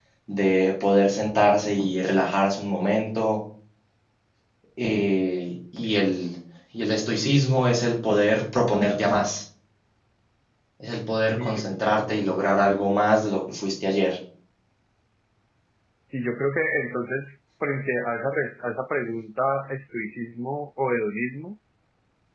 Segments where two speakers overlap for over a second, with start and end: none

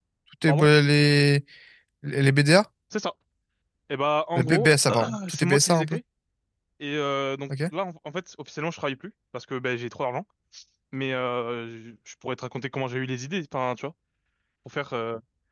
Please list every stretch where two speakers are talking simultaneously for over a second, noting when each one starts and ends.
4.4-6.0

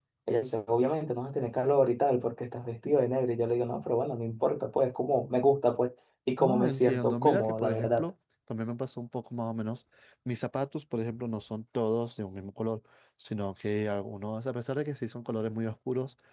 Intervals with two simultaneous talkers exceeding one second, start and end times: 6.4-8.1

